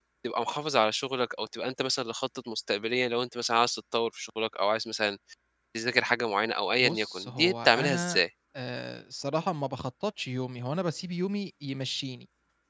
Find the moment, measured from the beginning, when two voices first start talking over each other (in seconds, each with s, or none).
6.8 s